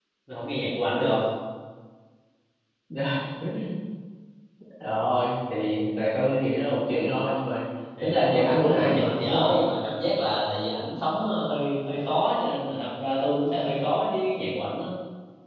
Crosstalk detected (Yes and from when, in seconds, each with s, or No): Yes, from 8.0 s